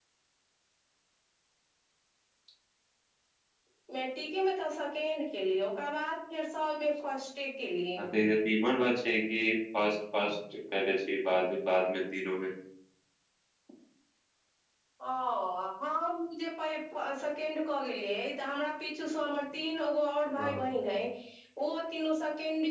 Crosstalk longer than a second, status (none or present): none